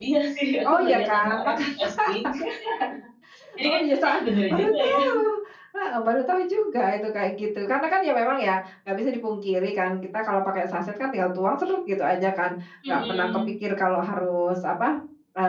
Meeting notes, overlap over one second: present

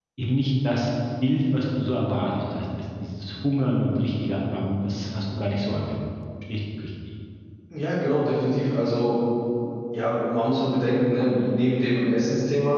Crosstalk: none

